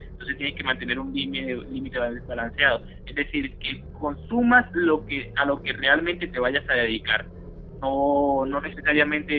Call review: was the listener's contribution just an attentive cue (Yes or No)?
Yes